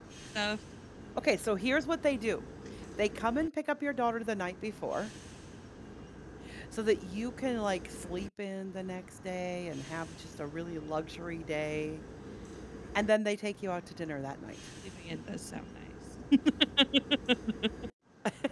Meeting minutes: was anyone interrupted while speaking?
No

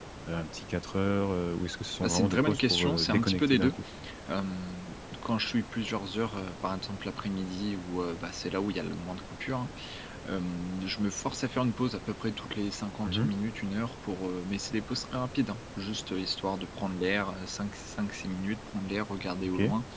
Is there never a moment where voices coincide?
No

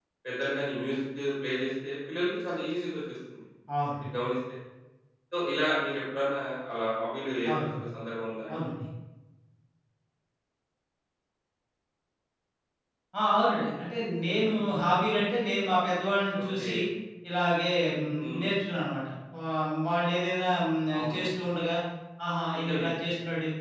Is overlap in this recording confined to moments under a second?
Yes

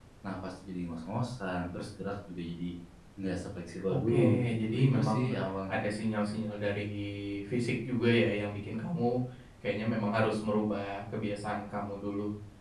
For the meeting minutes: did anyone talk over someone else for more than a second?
Yes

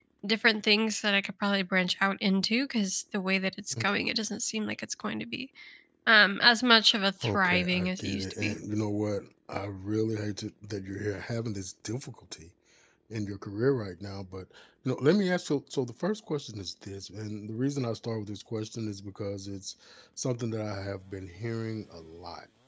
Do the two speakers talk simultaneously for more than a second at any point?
Yes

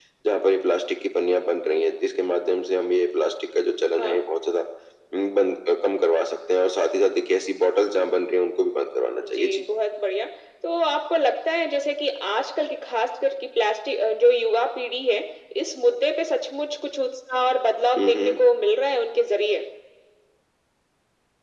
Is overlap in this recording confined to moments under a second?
Yes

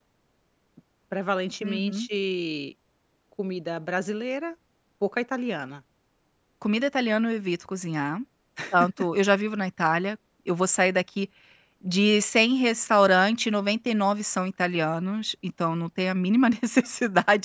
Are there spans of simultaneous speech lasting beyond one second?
No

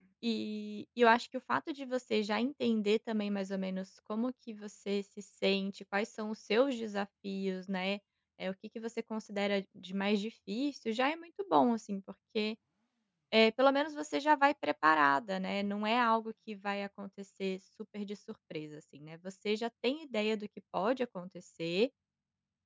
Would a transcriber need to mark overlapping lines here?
No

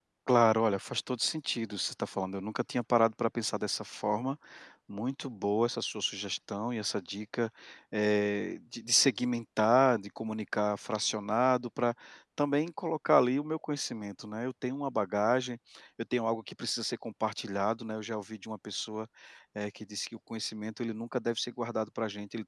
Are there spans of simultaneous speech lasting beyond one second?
No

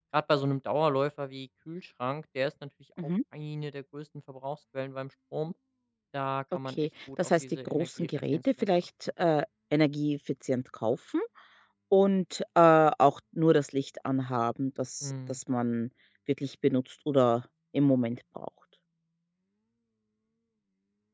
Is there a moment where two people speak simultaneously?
Yes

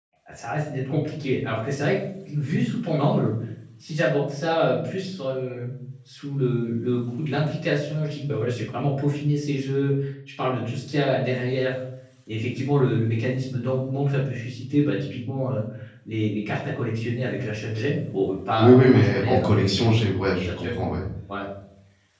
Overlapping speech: Yes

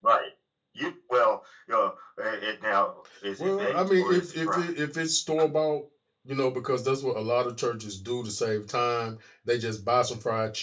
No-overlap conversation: No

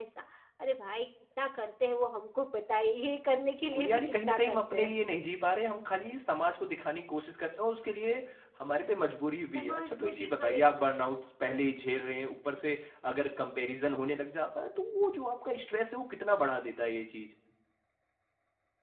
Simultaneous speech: Yes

